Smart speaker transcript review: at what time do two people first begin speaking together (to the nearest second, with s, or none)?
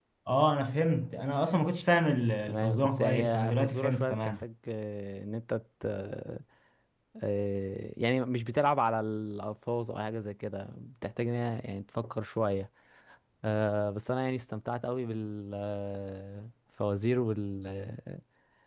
2 s